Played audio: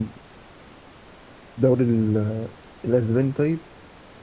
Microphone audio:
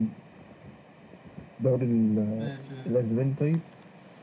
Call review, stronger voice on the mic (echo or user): echo